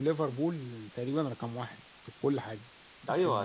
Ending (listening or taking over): taking over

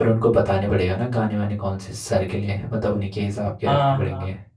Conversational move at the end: taking over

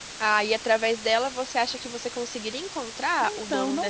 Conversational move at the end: taking over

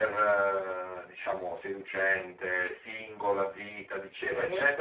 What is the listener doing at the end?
listening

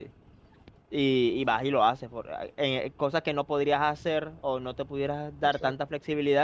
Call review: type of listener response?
listening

